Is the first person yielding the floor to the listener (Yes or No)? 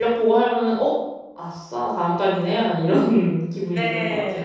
Yes